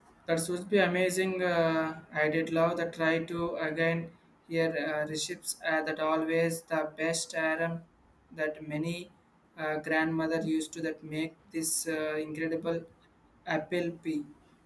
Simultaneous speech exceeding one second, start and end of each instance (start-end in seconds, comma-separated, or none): none